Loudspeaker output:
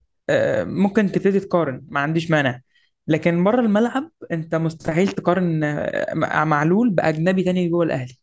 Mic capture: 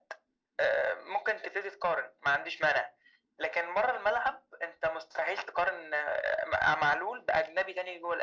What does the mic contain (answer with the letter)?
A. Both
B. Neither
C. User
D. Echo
D